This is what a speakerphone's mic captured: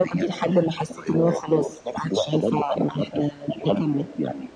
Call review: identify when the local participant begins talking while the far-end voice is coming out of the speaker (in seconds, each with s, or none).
none